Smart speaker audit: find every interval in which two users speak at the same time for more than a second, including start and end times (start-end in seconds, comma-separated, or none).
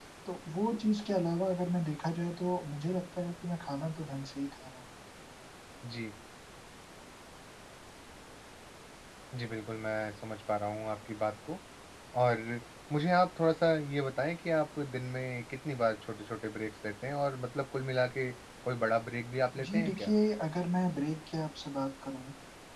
none